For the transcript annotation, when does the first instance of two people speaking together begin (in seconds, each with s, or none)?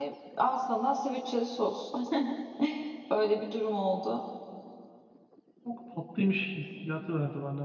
none